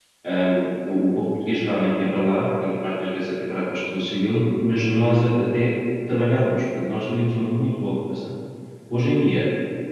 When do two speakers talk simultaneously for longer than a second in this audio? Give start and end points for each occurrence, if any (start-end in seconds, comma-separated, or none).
none